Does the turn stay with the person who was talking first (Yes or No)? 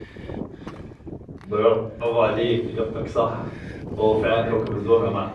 Yes